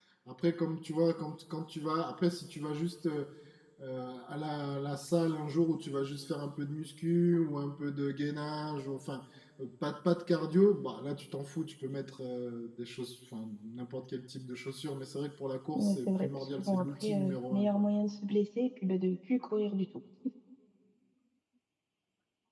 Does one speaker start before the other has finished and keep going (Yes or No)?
Yes